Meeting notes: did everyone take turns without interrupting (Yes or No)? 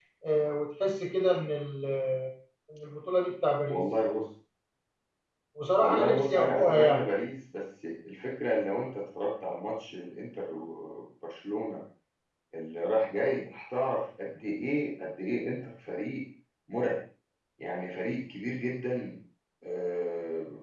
No